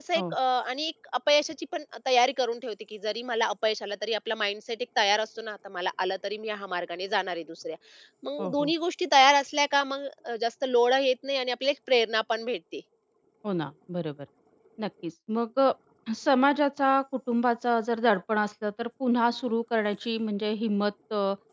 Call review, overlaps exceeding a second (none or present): none